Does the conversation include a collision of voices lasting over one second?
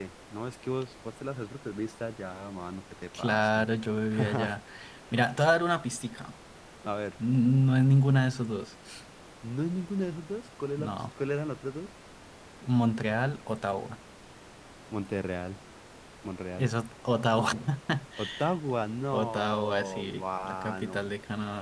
Yes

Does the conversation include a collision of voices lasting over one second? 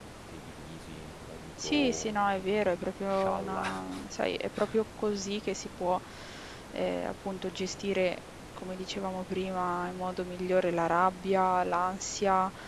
Yes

